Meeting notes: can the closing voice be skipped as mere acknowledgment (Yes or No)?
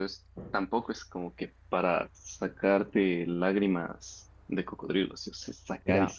No